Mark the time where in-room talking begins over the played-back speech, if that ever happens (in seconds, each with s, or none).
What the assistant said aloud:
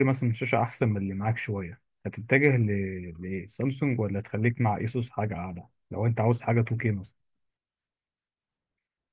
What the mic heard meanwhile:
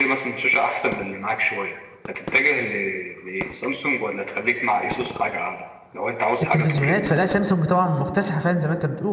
6.4 s